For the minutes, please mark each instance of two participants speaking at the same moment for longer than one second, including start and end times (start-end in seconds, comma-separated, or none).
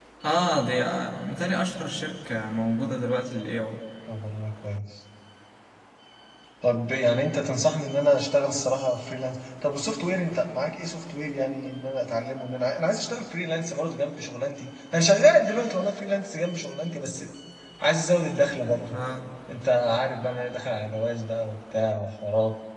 none